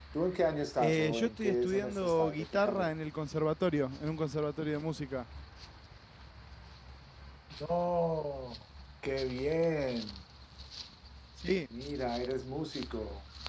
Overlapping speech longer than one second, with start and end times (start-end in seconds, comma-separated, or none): 0.8-2.9